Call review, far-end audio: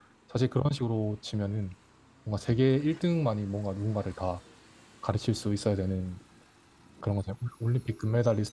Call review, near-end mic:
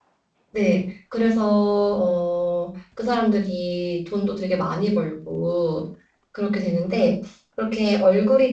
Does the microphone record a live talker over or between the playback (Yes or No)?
Yes